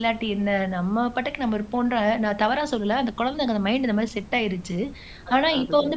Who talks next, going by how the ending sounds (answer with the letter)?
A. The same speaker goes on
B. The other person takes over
A